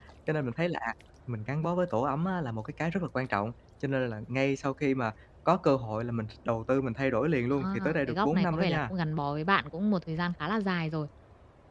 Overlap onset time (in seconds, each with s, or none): 7.5 s